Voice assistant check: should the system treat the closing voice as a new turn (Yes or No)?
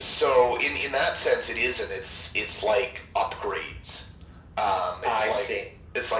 No